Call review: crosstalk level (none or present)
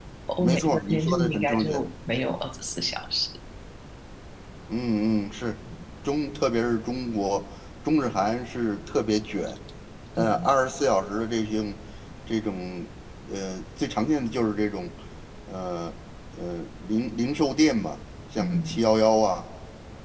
present